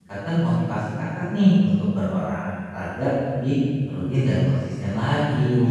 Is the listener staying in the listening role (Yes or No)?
No